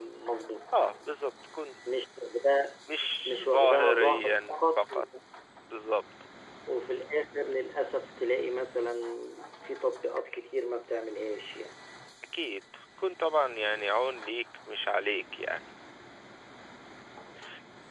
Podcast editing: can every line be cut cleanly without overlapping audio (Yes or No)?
No